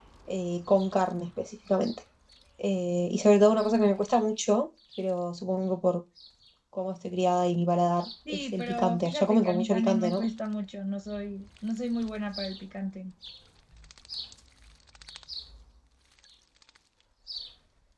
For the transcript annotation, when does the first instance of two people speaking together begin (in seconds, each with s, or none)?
8.2 s